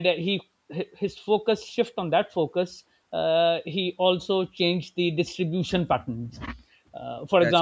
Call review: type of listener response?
listening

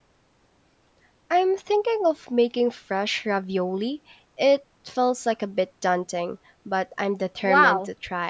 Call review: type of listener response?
taking over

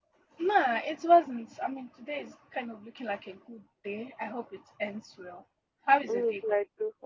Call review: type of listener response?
taking over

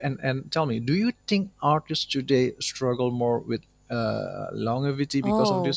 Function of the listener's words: taking over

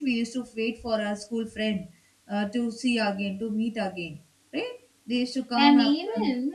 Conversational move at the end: taking over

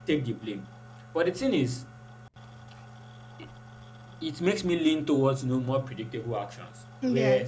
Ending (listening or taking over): listening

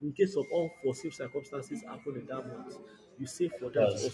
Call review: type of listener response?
listening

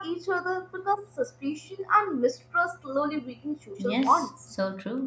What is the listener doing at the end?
taking over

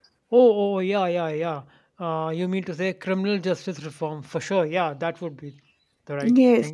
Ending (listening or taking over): taking over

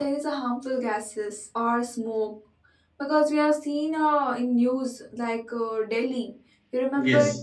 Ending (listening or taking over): listening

